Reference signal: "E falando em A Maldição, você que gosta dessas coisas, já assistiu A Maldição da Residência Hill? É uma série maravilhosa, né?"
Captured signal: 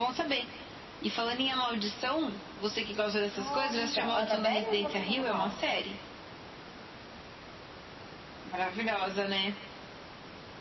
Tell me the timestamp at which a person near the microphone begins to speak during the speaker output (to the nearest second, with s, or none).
3 s